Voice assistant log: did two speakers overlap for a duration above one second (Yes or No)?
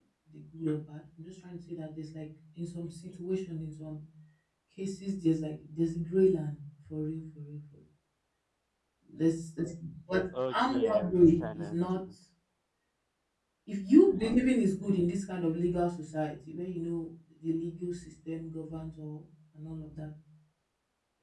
Yes